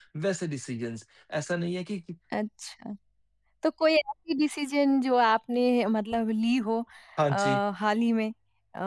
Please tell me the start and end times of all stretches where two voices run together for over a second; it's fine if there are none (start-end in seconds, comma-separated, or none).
none